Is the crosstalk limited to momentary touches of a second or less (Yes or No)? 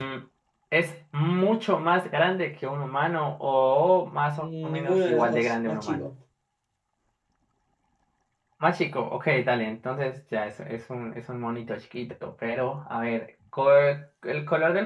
No